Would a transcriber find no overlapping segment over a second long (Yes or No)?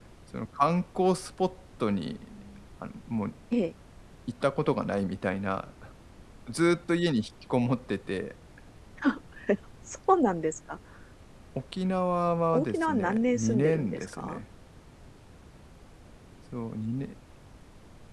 No